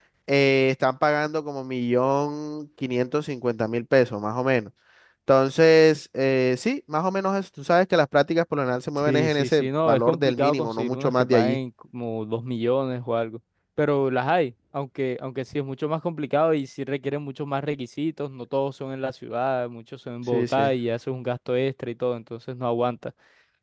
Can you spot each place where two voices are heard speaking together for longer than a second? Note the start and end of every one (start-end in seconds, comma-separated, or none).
9.0-11.6